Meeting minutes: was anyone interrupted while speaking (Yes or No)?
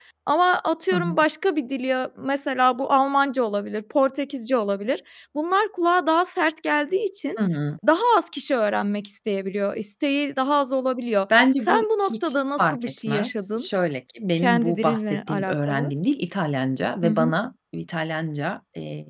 Yes